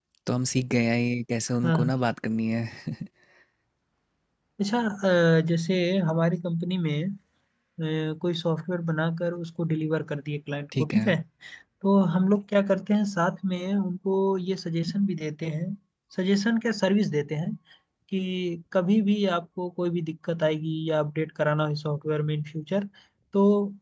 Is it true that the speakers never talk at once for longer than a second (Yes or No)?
Yes